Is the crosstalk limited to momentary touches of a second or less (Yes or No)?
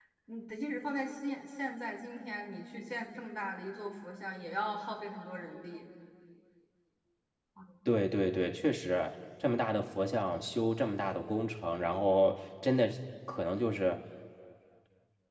Yes